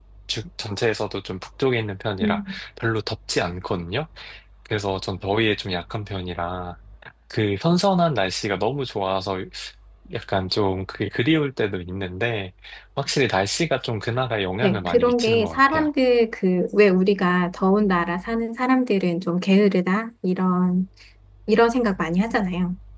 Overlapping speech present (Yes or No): Yes